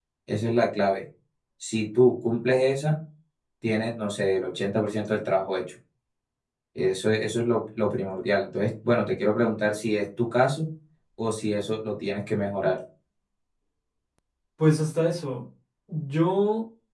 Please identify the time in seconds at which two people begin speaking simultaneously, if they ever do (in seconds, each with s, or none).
none